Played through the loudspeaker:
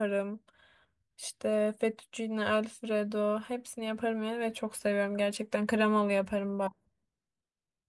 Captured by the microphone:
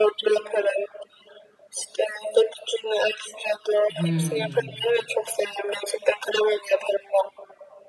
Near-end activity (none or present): present